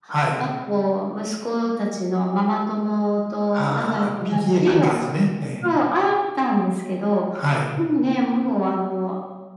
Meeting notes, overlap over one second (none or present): present